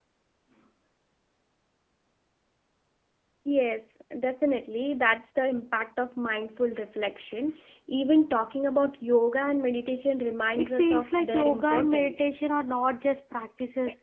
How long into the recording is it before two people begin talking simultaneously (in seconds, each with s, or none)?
10.6 s